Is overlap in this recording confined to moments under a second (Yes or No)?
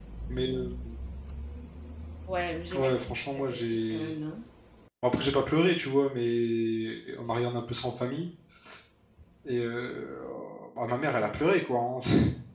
No